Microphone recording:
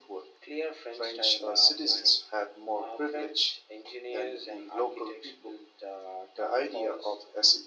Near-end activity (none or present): none